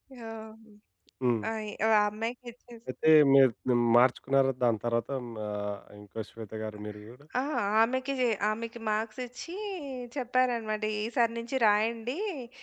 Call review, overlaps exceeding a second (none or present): none